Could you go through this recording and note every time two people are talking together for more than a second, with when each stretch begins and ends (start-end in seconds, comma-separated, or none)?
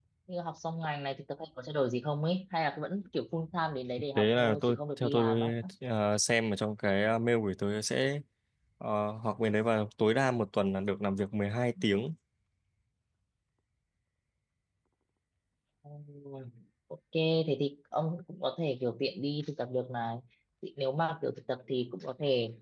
4.2-5.4